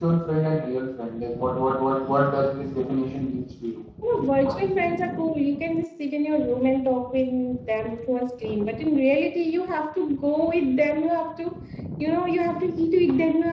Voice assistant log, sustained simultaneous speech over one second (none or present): none